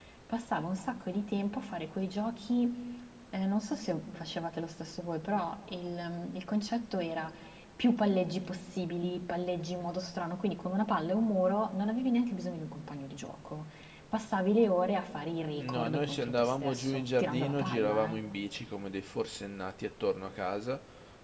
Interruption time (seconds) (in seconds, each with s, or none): 15.6 s